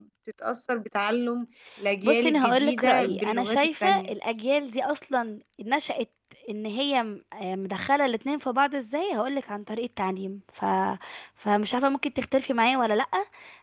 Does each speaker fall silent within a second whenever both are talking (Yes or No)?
No